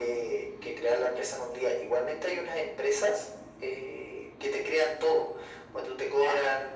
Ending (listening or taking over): listening